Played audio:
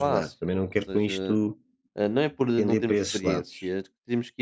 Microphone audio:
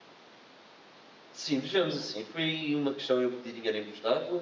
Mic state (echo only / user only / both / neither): user only